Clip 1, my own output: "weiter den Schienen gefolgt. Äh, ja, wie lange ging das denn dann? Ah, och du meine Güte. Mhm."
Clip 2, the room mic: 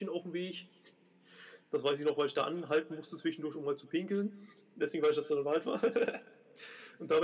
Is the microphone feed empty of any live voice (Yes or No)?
No